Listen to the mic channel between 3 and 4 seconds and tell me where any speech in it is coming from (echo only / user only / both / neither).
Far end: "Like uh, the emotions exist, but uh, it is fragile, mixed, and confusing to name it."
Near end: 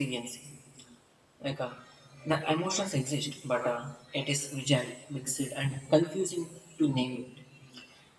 echo only